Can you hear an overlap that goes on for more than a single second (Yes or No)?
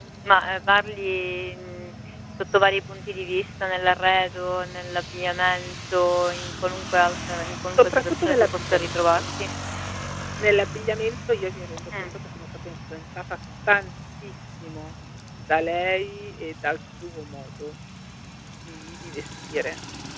Yes